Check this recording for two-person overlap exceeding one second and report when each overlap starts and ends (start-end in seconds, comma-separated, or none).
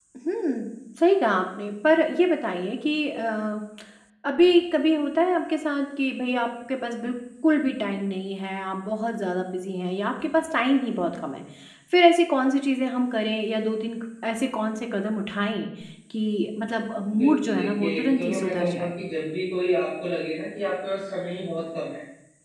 17.1-18.9